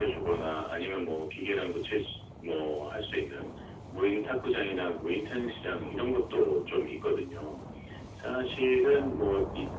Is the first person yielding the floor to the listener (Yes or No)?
No